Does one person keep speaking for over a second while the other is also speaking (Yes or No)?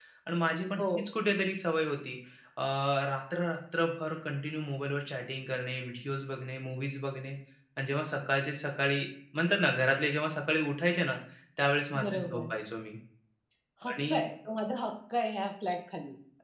No